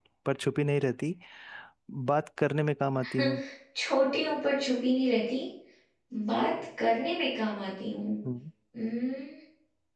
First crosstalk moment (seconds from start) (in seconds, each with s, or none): none